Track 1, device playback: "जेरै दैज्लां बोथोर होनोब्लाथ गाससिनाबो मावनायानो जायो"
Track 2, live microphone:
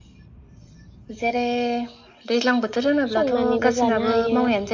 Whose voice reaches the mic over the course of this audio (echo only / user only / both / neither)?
both